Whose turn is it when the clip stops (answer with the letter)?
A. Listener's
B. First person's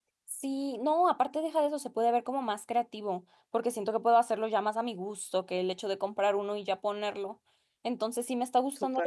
B